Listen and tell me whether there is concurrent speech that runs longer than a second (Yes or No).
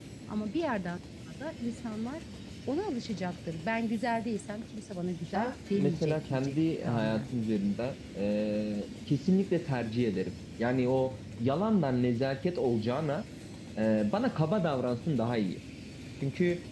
Yes